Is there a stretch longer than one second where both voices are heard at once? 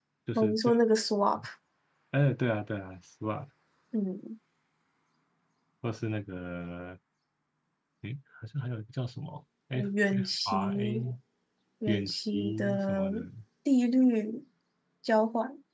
Yes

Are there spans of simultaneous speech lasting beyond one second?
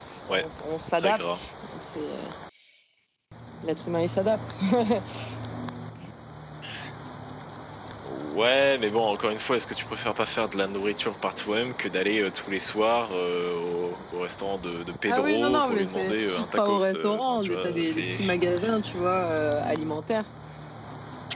Yes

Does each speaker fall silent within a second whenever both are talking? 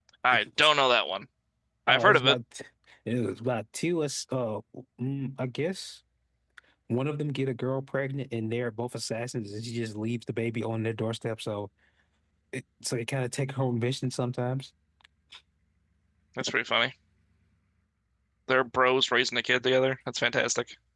Yes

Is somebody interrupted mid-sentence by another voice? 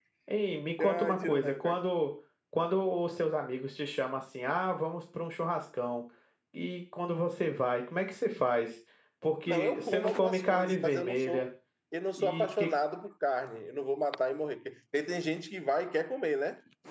Yes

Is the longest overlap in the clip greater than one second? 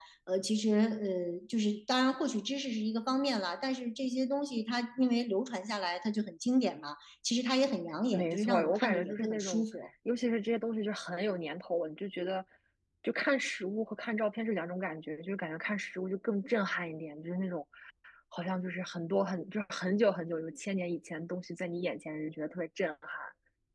Yes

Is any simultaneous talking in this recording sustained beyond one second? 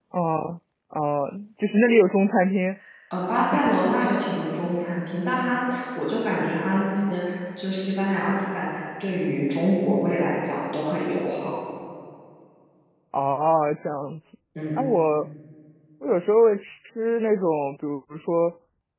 No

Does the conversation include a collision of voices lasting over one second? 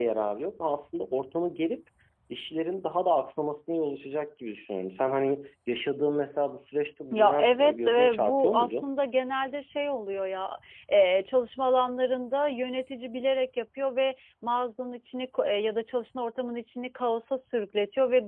Yes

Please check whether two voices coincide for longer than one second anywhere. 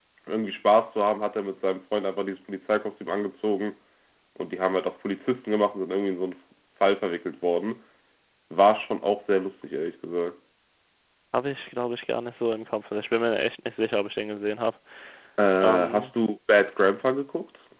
No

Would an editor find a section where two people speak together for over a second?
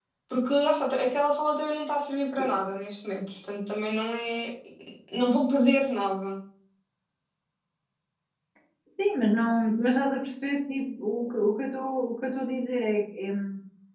No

